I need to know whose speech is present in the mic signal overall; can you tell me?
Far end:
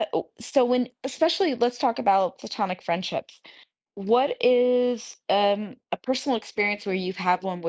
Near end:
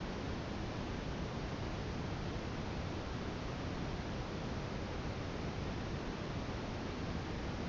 neither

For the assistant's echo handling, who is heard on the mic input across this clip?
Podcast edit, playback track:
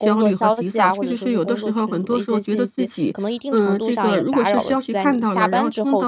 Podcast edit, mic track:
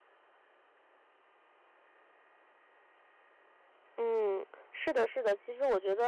user only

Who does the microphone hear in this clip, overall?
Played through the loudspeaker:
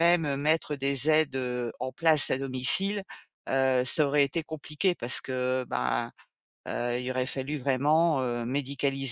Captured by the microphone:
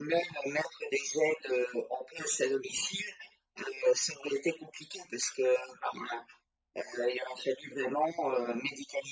echo only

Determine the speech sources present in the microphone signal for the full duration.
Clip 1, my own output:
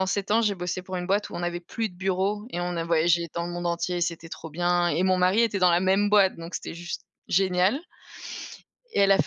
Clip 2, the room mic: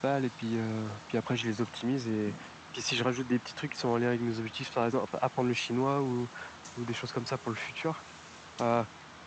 user only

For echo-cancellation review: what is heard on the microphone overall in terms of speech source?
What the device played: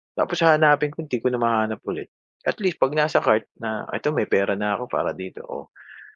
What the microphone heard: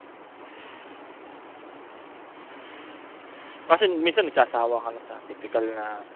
user only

